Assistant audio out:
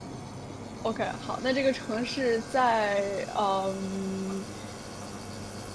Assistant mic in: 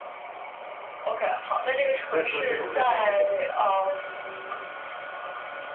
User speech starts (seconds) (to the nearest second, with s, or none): 2 s